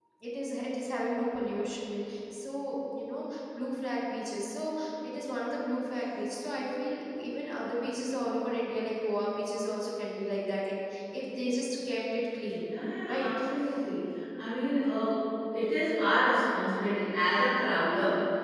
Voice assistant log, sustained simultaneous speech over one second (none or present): none